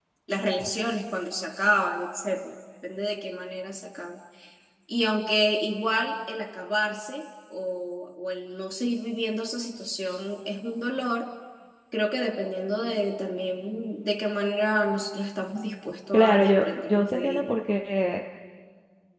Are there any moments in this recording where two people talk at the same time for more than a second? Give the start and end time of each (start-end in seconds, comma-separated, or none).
16.1-17.5